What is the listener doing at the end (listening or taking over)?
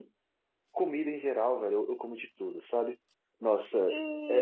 listening